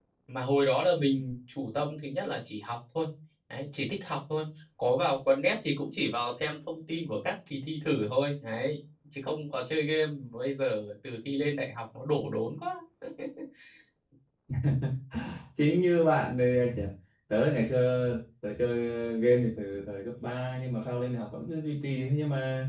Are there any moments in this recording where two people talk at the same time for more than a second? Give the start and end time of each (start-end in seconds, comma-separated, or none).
none